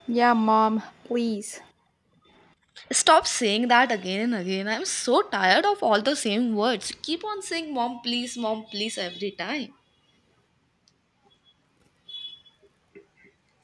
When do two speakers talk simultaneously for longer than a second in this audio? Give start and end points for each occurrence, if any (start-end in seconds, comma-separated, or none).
none